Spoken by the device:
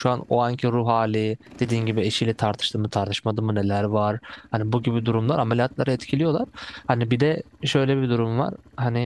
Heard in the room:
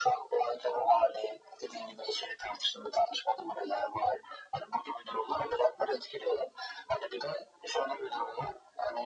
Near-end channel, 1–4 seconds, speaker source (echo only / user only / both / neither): echo only